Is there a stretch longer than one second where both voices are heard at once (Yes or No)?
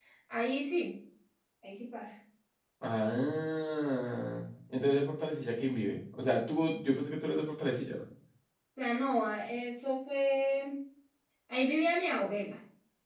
No